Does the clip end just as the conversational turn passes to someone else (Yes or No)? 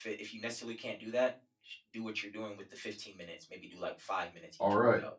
Yes